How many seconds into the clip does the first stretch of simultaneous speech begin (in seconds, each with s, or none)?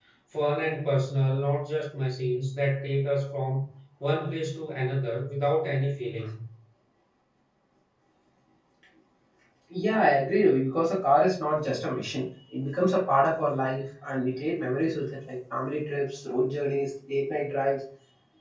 none